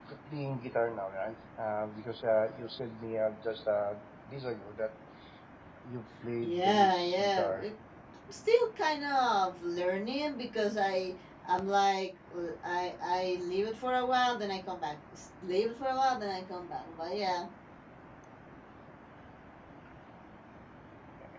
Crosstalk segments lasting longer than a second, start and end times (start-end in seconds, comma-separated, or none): 6.4-7.7